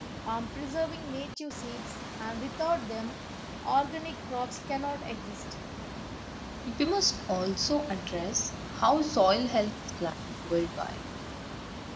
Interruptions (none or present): none